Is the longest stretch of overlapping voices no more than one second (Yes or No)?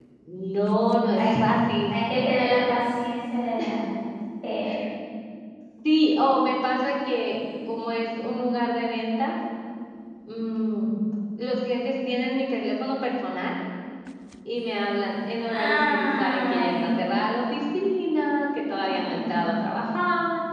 No